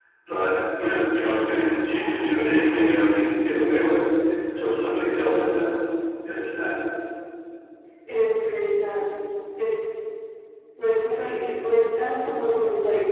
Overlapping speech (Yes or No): No